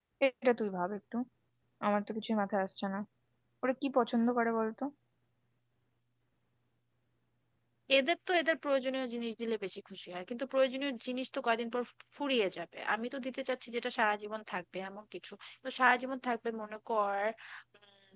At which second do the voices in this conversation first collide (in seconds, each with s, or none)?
none